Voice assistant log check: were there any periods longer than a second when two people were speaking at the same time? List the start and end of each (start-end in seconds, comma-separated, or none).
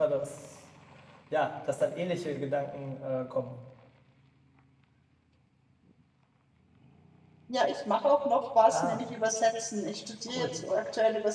none